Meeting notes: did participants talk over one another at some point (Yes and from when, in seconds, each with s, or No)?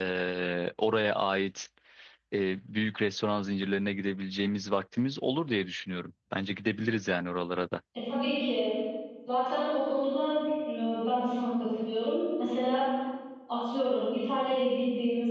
No